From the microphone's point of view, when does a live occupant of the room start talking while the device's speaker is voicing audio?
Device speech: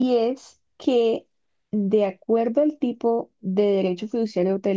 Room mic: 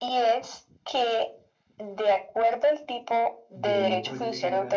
4 s

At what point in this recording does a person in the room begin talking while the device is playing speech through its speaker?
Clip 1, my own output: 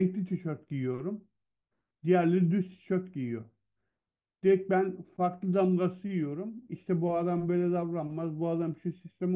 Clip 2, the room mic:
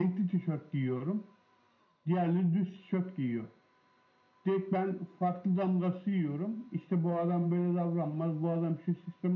none

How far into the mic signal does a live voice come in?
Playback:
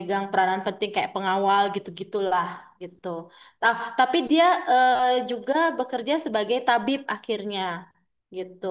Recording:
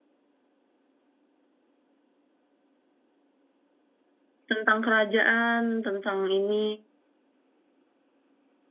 5 s

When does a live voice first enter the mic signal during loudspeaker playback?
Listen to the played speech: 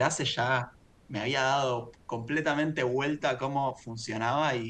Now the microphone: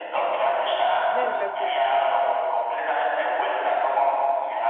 1 s

